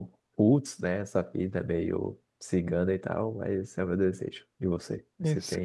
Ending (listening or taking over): taking over